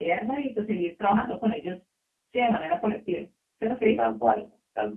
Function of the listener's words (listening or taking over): taking over